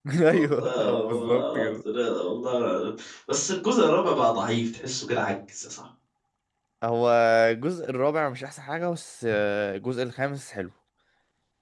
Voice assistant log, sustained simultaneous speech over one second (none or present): present